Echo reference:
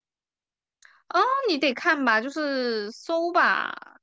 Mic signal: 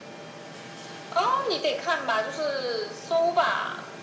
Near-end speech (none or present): none